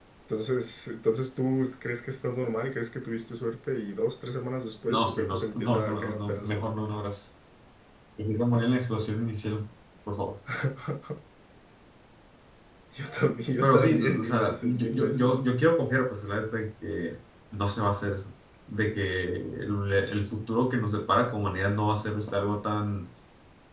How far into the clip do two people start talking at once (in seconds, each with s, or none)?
4.9 s